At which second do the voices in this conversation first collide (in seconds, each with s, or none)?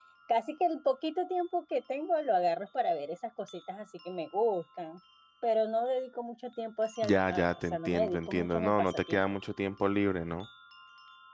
7.0 s